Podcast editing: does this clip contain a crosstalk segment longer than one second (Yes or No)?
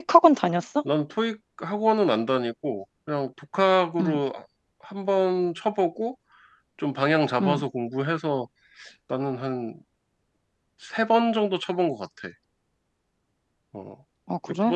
No